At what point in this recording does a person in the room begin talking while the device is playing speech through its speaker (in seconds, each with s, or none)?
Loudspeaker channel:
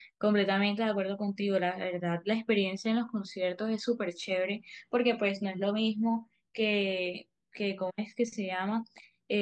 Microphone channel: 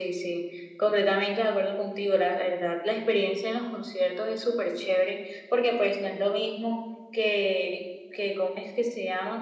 none